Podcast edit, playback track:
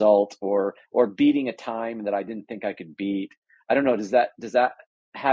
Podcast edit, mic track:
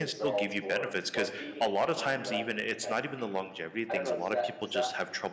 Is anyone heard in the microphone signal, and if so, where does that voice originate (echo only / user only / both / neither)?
both